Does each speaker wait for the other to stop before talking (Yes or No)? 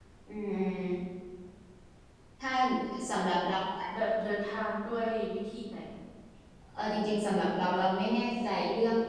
Yes